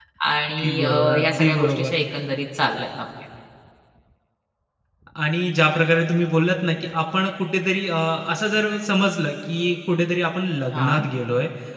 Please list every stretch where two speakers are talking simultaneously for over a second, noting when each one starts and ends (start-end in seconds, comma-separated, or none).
0.6-1.9